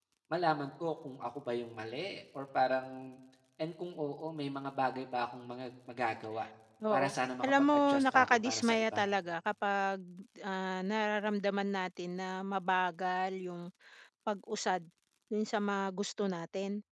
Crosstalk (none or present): present